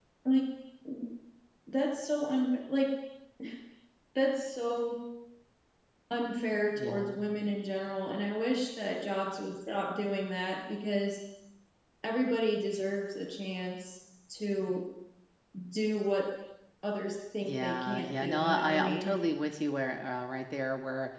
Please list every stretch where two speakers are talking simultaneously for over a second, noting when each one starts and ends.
17.4-19.2

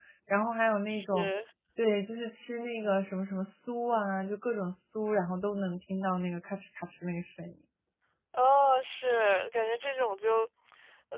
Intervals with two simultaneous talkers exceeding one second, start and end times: none

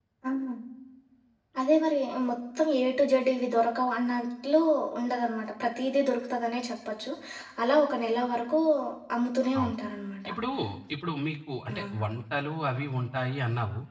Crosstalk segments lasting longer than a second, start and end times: none

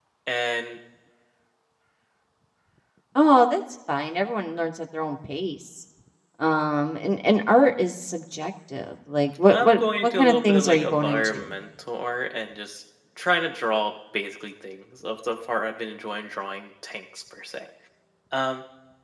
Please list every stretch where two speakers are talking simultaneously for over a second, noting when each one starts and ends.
9.5-11.5

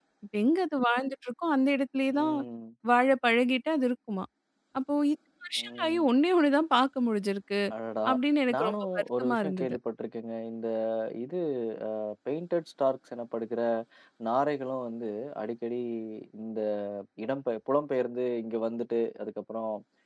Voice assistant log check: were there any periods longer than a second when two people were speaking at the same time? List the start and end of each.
8.5-9.8

